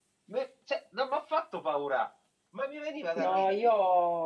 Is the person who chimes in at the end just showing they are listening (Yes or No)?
No